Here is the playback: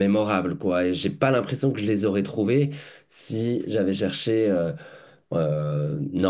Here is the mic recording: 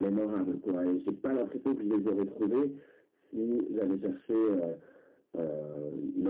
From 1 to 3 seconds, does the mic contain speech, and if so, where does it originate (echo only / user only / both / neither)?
echo only